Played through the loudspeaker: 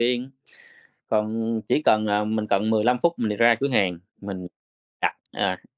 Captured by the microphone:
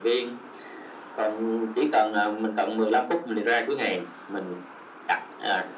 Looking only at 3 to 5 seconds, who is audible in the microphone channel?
echo only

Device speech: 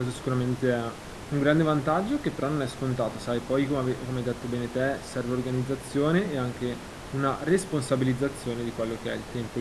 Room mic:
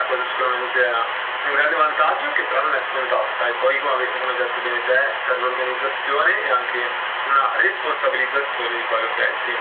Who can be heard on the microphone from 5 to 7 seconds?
echo only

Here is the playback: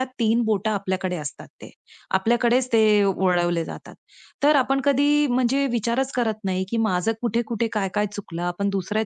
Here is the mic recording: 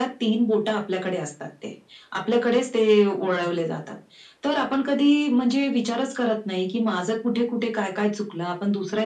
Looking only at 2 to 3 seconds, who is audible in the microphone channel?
echo only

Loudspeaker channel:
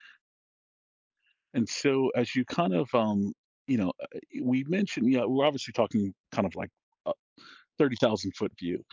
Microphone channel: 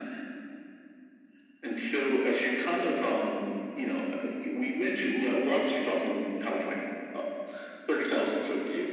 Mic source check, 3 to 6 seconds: echo only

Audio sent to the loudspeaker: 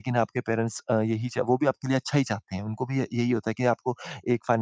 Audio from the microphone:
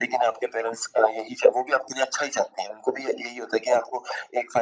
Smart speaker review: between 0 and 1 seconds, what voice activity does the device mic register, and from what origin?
echo only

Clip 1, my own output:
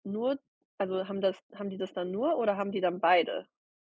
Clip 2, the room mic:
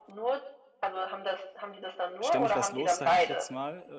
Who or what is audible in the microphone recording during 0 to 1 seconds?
echo only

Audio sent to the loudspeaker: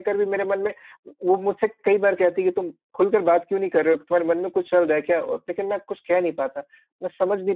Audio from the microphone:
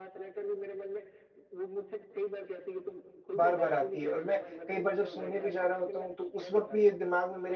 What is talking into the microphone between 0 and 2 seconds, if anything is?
echo only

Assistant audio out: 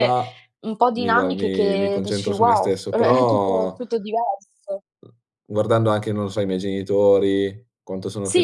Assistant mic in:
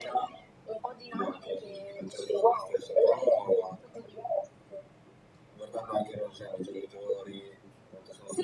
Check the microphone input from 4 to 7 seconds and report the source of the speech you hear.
echo only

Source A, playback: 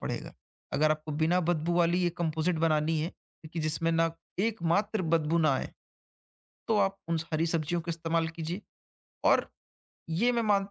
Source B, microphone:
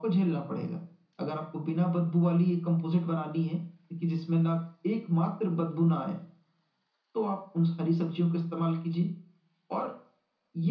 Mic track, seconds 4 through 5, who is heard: echo only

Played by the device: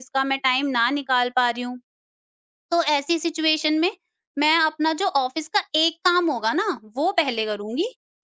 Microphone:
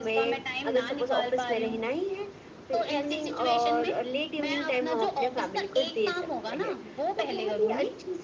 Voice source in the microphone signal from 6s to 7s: both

